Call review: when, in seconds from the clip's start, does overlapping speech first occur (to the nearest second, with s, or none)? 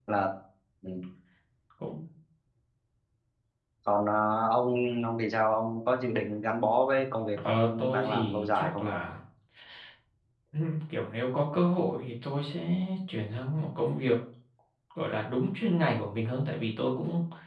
7 s